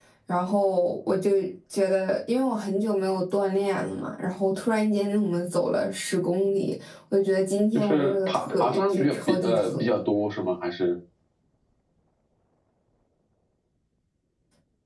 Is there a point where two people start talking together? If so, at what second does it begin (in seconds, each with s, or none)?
7.7 s